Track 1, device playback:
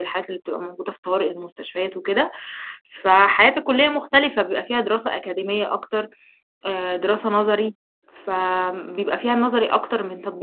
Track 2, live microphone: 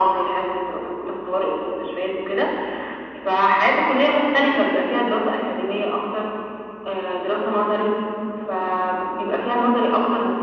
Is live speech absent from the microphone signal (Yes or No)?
Yes